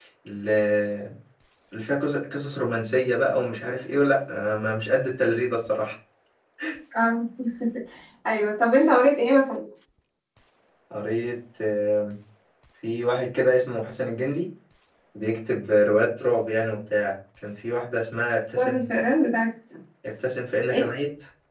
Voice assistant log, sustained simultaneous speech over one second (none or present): none